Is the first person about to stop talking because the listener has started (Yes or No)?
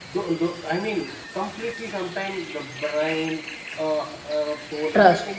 No